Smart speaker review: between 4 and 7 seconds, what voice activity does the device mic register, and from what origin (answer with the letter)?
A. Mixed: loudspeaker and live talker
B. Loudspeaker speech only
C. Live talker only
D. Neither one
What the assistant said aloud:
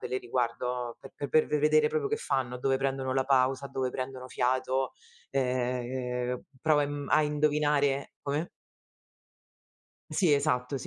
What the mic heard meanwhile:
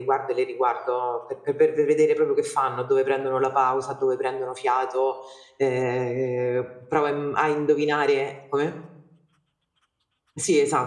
B